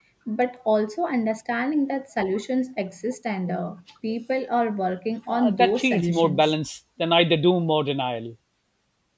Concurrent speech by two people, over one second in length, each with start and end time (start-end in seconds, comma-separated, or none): 5.3-6.5